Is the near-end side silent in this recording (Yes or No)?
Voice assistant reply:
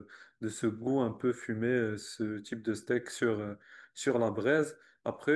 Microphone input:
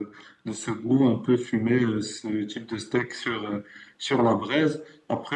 Yes